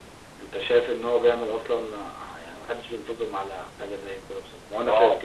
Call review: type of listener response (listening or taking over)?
taking over